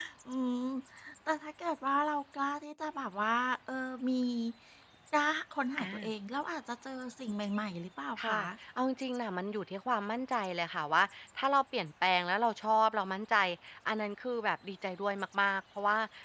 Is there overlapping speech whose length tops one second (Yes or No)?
No